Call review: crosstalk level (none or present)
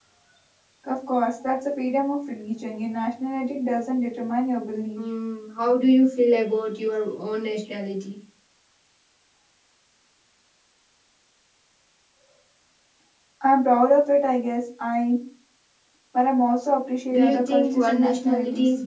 present